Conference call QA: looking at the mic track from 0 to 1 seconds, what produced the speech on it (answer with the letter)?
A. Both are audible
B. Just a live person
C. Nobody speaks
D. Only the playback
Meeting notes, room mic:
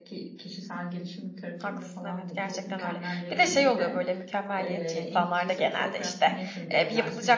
D